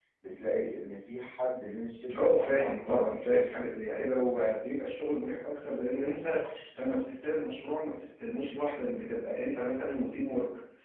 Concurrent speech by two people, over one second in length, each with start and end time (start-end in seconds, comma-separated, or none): 2.1-4.1